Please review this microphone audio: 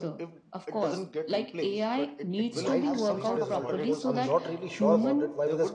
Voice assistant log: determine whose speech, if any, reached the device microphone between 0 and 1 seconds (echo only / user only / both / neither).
echo only